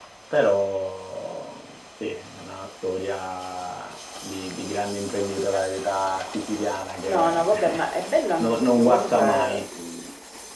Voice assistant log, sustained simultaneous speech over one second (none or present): present